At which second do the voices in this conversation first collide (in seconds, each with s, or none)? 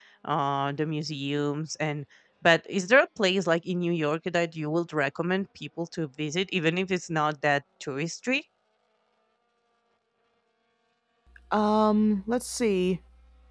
none